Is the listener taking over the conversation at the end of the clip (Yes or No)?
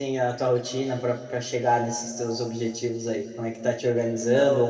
No